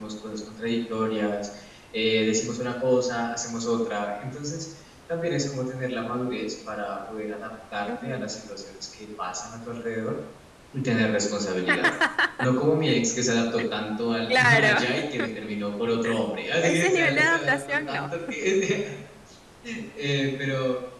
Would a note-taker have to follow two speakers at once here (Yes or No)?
Yes